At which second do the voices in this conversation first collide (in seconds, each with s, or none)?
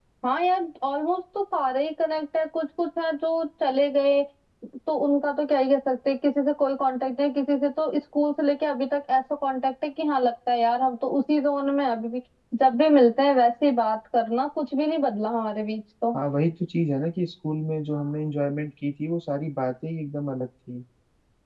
none